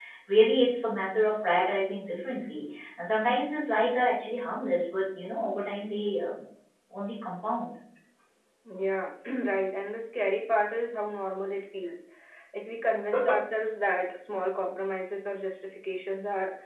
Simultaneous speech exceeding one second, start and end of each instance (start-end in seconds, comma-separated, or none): none